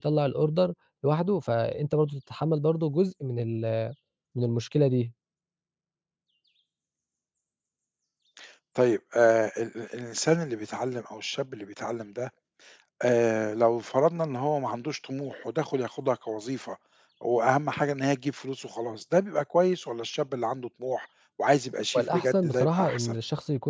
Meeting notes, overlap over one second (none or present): present